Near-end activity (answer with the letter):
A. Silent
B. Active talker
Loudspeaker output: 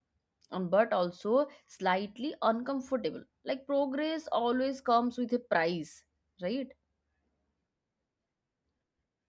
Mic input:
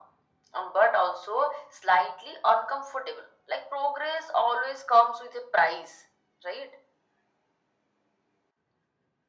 A